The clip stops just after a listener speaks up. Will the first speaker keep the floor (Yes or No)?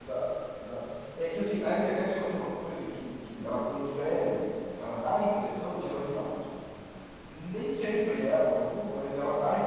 Yes